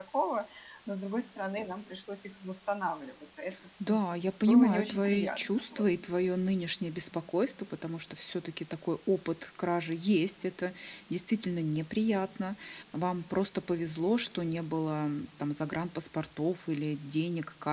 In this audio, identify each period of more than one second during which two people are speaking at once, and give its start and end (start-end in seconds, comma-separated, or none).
4.5-5.8